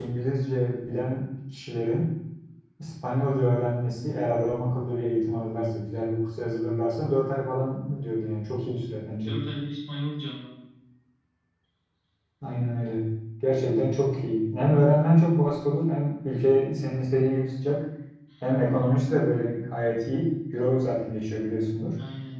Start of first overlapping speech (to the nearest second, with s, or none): none